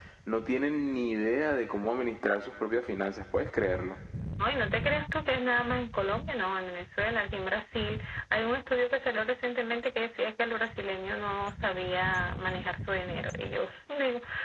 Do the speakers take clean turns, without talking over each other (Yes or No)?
Yes